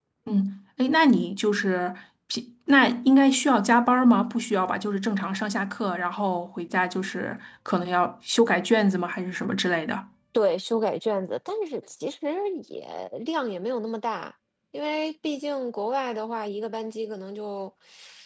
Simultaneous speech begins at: none

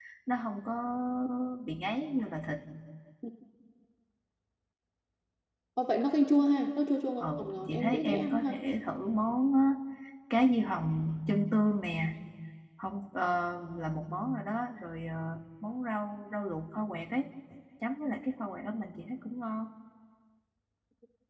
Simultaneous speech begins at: 7.2 s

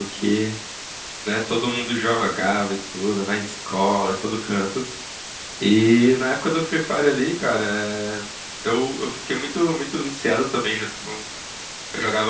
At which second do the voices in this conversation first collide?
none

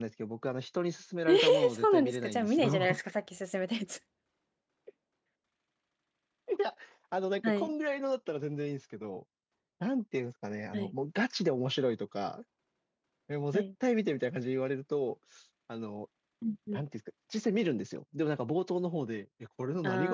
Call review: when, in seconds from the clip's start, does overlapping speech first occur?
1.3 s

